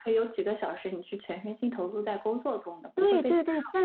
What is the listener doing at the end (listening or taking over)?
taking over